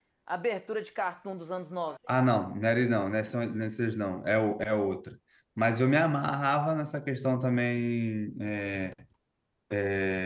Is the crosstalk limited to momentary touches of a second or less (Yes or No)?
Yes